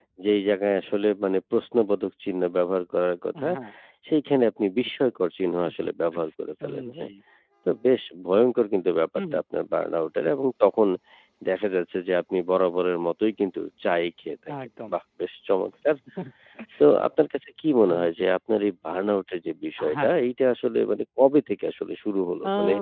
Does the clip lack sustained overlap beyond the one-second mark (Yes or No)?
Yes